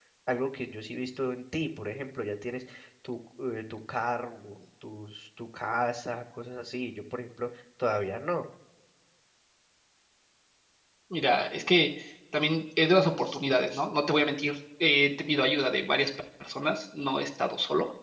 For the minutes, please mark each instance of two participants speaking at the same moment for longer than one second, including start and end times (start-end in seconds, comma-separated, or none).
none